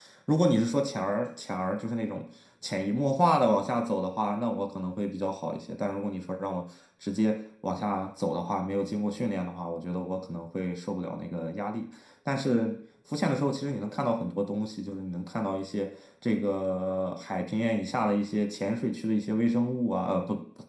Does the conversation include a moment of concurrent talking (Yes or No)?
No